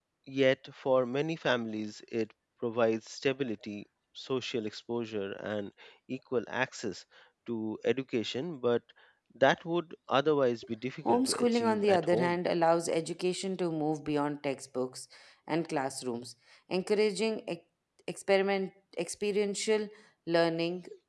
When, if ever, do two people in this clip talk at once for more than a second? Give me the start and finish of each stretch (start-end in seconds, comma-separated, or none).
11.1-12.3